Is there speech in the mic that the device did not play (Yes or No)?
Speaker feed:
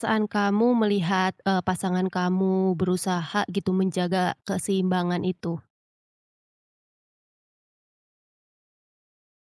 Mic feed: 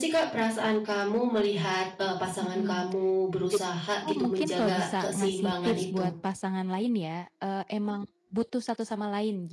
Yes